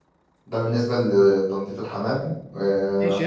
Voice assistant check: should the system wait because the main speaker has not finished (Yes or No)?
No